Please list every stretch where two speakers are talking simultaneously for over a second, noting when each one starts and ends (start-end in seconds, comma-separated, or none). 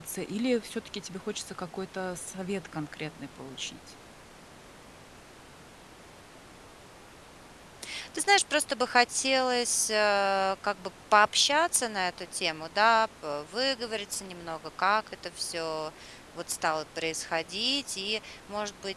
none